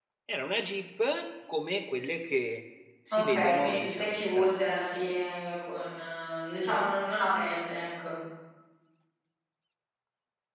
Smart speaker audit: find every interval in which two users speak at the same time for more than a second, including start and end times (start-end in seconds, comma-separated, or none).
3.1-4.7